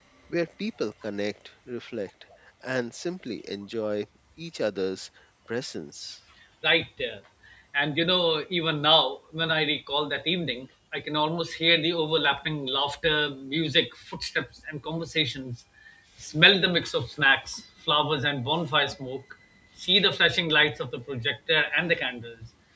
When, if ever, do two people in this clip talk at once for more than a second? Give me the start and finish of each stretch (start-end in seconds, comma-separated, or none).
none